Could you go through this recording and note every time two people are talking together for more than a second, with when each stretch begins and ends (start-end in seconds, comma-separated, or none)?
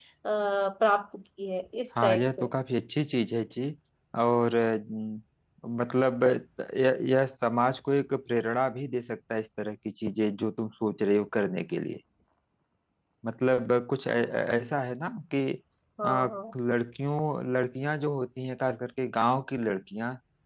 none